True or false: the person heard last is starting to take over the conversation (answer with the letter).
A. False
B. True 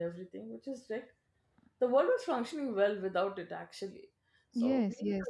B